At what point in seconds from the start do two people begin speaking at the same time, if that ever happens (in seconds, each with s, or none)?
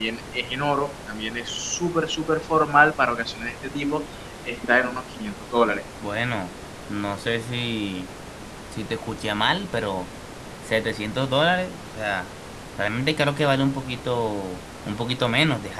none